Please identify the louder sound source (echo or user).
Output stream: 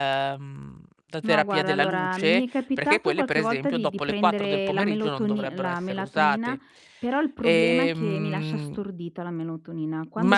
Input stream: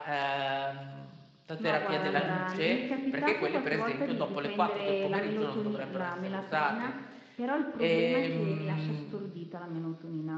echo